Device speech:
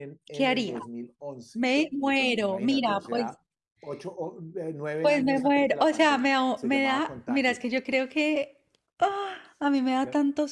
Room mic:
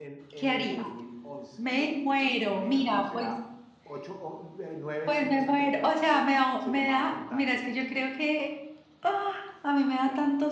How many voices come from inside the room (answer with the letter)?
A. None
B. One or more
A